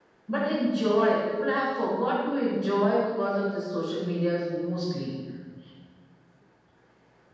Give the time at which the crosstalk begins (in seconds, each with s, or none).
none